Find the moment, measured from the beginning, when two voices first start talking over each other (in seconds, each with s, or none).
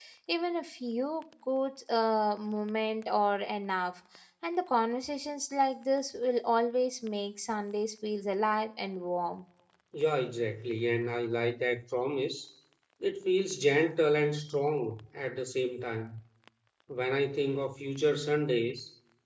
none